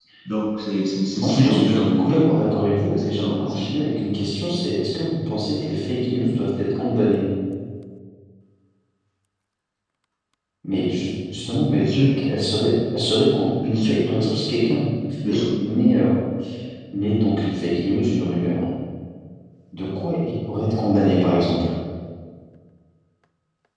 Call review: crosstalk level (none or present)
present